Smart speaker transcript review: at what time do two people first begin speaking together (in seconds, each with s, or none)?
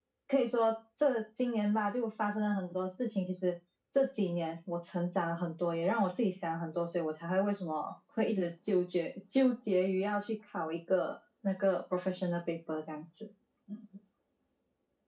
none